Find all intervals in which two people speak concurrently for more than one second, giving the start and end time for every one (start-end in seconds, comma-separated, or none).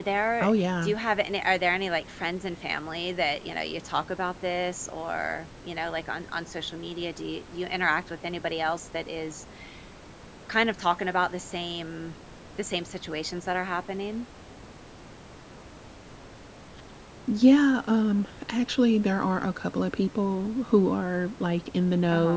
none